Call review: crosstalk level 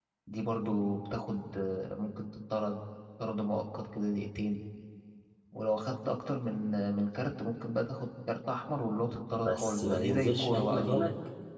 present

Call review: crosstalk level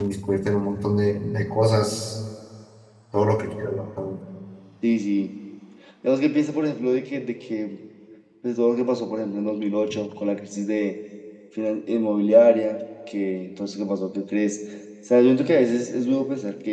none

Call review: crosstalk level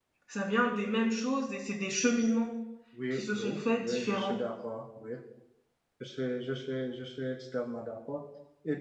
present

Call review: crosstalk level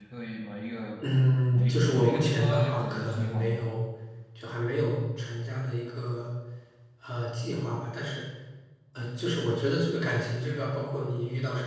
present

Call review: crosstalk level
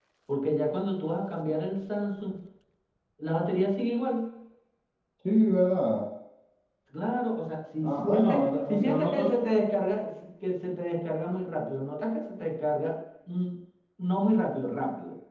present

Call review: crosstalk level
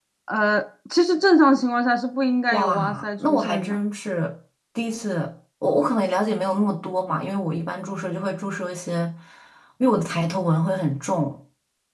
present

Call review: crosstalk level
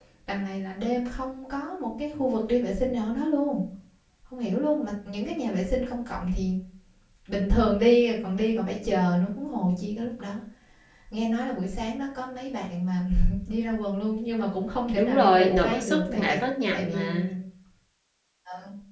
present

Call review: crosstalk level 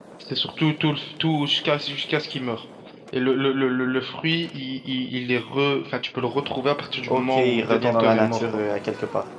present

